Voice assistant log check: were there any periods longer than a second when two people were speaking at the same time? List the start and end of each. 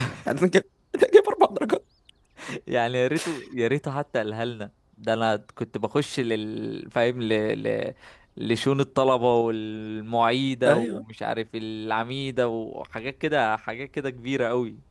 none

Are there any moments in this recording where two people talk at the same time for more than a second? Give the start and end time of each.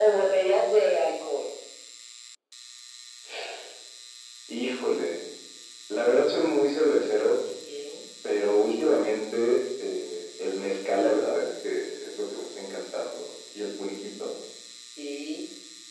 none

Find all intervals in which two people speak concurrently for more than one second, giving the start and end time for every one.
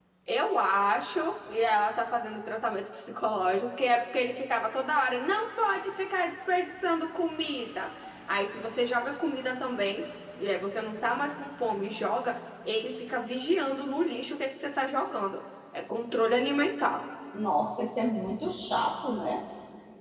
none

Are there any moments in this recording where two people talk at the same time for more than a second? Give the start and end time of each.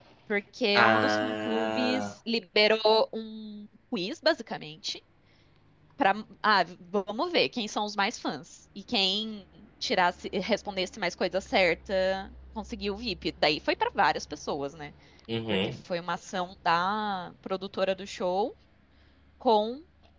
0.8-2.0

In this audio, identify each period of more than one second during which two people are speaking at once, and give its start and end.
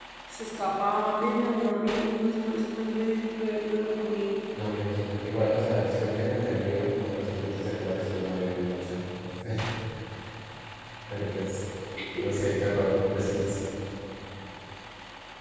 none

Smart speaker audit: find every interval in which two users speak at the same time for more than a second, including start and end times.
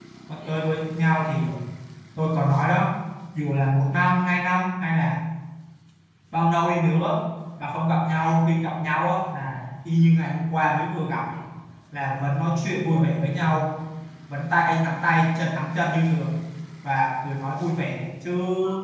none

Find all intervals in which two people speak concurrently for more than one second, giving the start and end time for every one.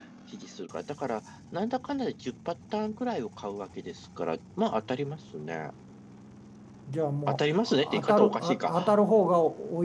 7.3-8.9

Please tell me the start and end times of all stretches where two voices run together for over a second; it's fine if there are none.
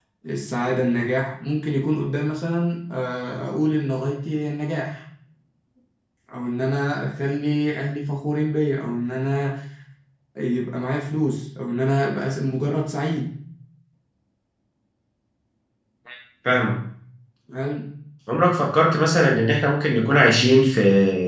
none

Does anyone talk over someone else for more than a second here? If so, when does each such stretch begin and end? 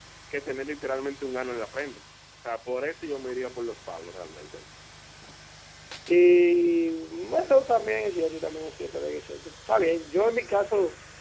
none

